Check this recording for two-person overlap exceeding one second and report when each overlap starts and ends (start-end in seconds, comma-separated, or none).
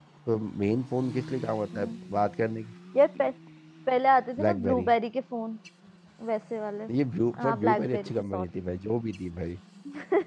7.4-8.6